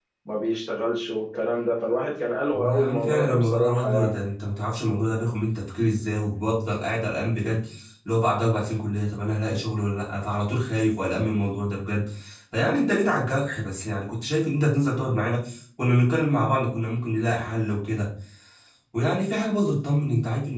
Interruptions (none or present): present